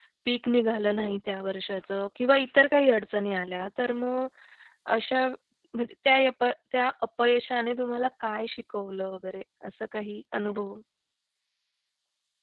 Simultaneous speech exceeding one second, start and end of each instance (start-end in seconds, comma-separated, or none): none